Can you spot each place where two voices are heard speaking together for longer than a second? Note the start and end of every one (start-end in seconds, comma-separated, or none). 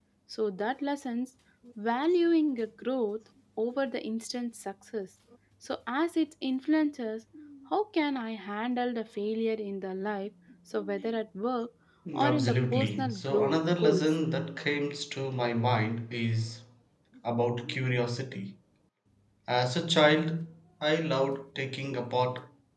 12.2-14.1